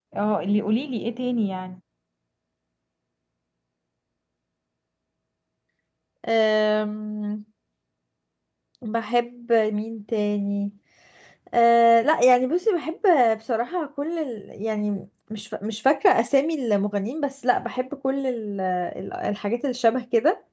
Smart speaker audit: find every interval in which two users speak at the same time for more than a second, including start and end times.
none

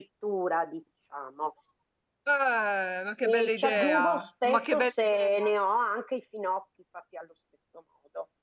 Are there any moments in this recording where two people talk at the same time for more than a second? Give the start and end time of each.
3.2-5.5

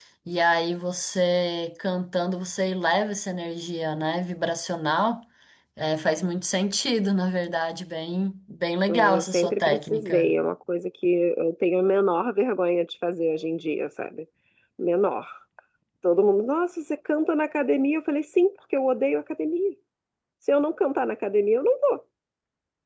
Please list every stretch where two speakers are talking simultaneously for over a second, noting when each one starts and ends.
8.9-10.3

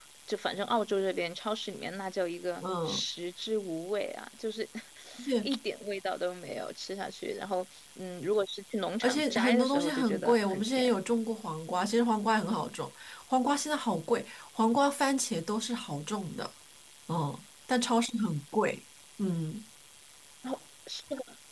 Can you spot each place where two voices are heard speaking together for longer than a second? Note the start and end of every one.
9.0-11.0

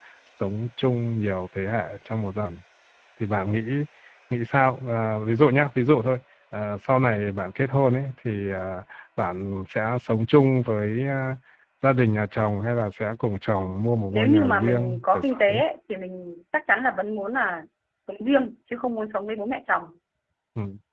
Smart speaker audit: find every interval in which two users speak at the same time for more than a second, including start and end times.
14.1-15.6

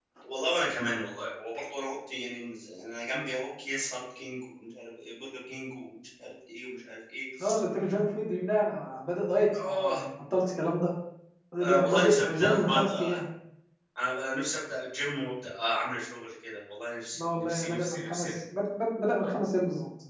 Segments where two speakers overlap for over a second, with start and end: 11.6-13.2, 17.1-18.3

